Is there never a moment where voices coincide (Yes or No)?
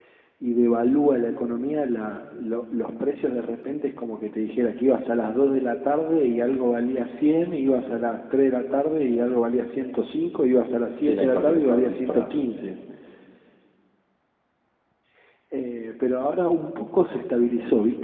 No